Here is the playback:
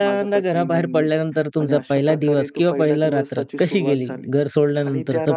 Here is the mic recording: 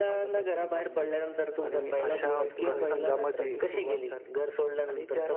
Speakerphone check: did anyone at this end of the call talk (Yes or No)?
Yes